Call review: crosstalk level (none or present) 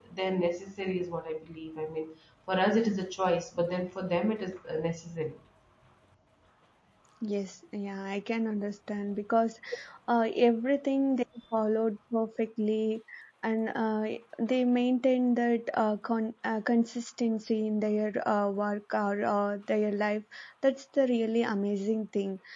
none